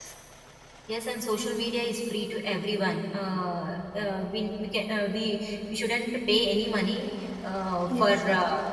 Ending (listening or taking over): listening